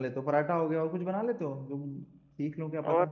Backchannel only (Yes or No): No